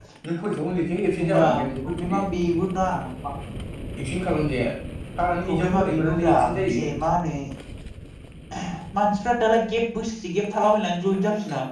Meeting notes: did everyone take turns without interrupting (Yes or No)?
No